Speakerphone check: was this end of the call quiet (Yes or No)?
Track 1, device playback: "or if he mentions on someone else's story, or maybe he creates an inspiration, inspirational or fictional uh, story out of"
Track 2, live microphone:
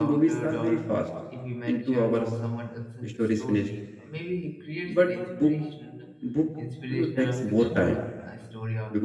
No